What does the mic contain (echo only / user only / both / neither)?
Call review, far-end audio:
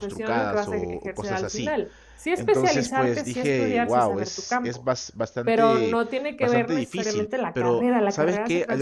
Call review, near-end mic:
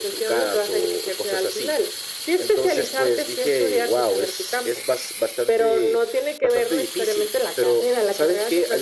echo only